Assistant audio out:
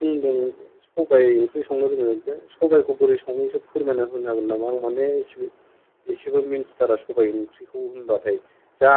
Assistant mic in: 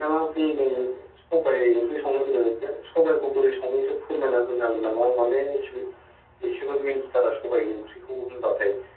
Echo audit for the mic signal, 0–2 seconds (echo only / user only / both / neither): echo only